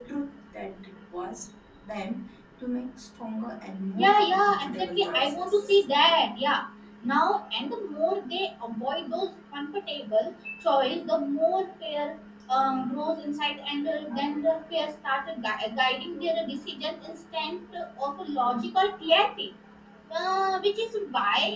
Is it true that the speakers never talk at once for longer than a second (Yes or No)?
No